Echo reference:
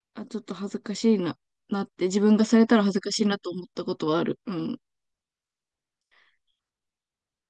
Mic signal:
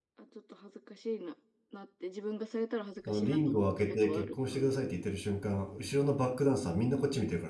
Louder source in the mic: user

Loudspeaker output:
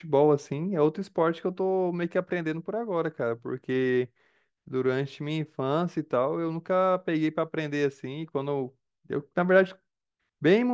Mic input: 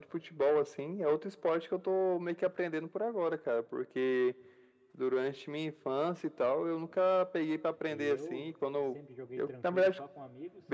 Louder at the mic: echo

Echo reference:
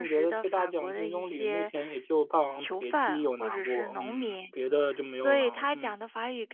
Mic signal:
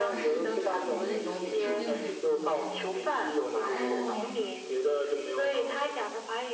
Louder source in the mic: echo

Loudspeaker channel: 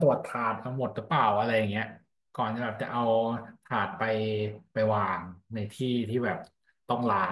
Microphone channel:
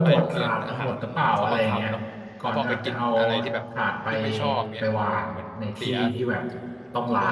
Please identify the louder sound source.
echo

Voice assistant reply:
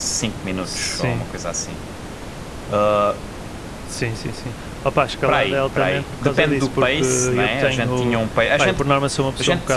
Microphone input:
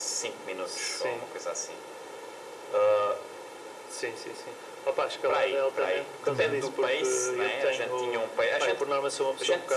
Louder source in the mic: echo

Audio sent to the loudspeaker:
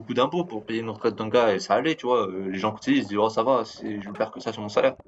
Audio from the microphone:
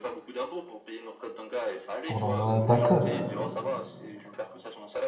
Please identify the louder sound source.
user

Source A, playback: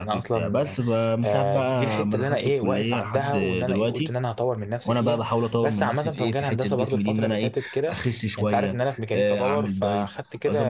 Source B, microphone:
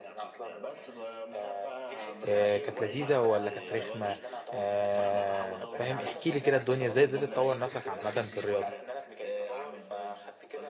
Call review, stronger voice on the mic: user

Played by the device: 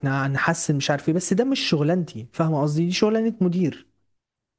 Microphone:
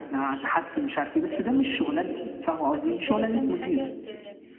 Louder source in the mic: echo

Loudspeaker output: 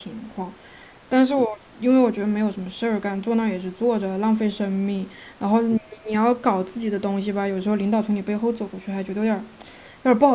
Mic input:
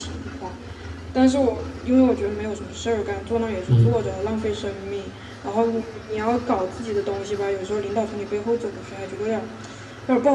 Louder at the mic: user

